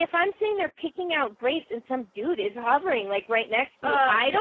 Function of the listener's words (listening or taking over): listening